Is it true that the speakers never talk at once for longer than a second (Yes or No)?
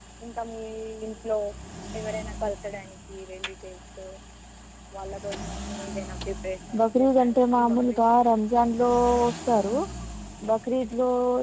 No